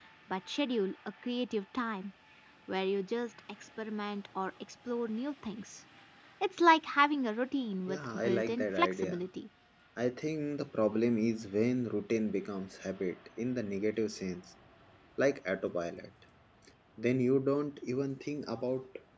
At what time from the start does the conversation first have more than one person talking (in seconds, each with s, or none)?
7.9 s